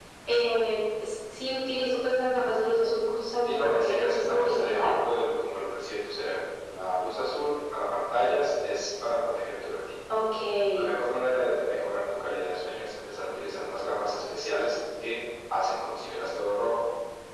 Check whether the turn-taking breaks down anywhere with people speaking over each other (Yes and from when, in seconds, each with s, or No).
Yes, from 3.4 s